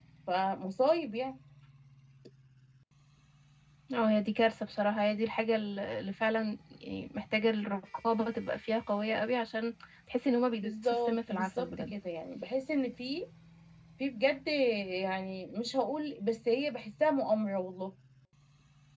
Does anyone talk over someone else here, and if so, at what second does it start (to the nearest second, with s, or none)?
11 s